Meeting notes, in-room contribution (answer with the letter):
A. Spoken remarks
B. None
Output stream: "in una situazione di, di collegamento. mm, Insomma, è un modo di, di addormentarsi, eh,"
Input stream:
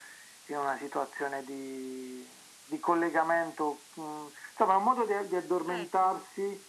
A